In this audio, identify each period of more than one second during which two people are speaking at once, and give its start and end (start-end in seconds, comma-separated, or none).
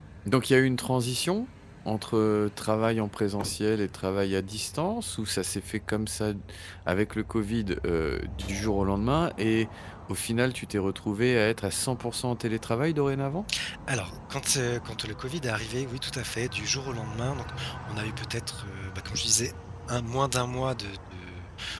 none